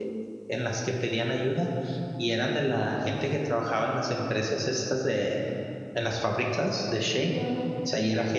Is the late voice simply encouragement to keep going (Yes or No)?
Yes